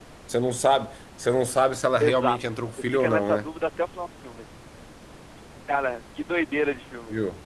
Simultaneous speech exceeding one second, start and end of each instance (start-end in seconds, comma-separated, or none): 2.0-3.5